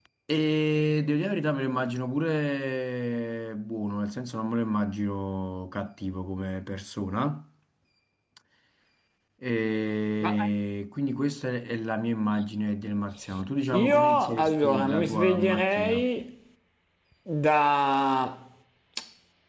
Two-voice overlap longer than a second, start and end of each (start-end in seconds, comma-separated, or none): 13.7-16.1